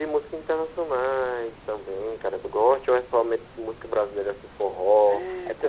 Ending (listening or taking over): taking over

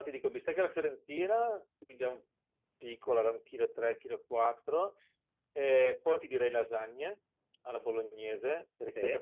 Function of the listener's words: listening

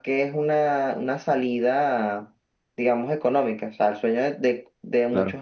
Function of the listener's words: listening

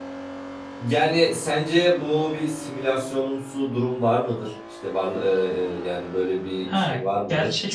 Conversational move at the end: taking over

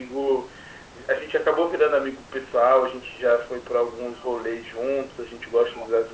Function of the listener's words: listening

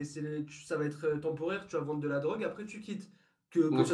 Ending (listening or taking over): taking over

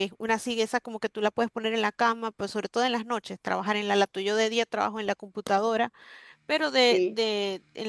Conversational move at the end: listening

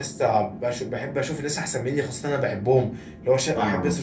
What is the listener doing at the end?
listening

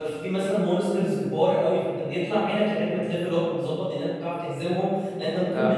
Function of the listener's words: listening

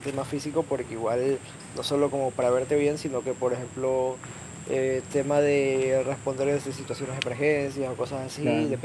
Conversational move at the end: listening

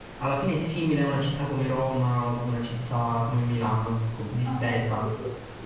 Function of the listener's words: taking over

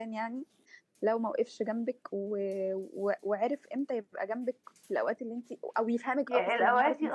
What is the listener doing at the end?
taking over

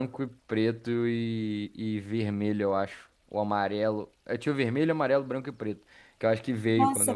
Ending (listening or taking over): taking over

